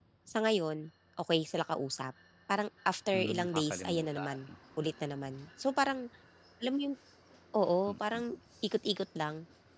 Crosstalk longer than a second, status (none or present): present